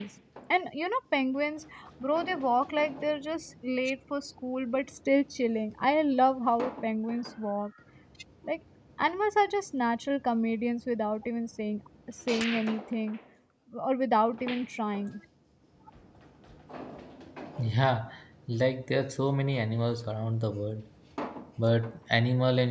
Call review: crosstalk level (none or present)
none